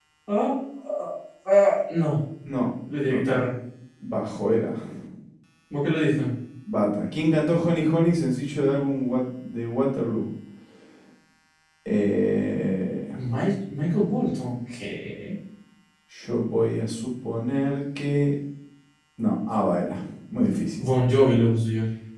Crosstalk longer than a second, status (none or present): none